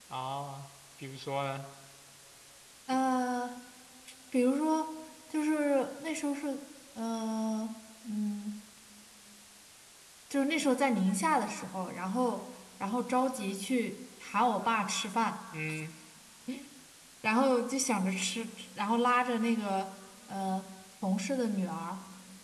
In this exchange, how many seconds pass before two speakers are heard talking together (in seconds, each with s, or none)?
none